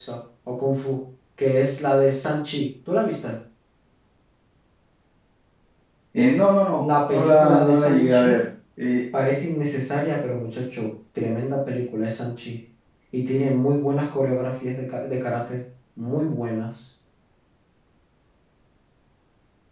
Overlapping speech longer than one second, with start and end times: 6.7-8.4

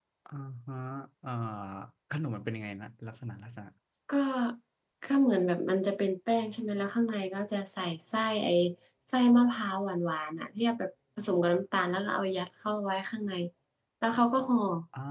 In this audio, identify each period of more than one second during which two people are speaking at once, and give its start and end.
none

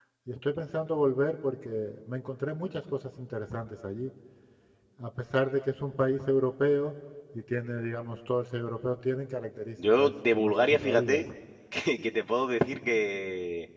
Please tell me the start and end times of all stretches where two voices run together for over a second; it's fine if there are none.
10.0-11.2

